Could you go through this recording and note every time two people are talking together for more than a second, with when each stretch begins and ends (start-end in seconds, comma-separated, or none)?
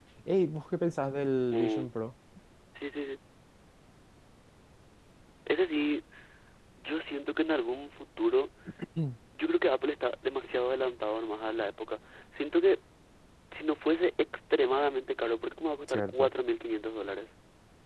none